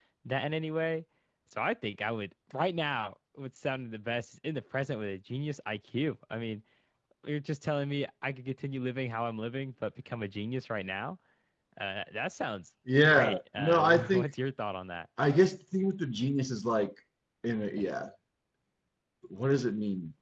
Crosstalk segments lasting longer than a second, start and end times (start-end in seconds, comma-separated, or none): 13.0-14.3